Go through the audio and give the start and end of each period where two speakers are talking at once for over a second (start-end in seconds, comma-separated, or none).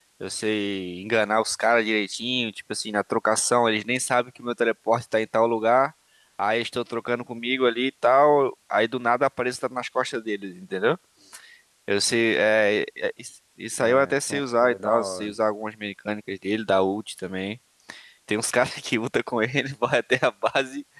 13.8-15.3